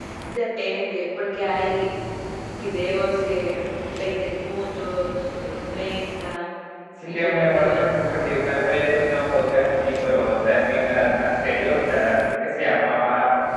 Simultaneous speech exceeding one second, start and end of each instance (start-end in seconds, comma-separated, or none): 7.1-8.5